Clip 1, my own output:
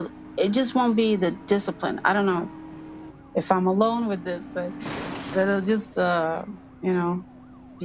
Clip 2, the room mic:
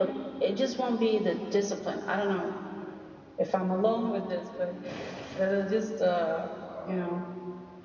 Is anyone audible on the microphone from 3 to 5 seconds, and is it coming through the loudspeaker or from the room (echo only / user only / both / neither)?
echo only